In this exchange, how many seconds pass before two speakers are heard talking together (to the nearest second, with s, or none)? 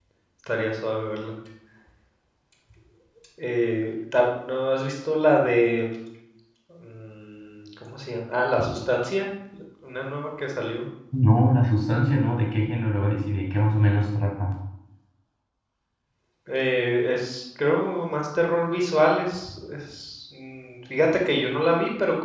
none